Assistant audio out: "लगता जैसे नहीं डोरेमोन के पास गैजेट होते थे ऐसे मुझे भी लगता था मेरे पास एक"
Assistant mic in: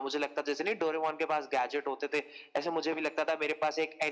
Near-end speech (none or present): none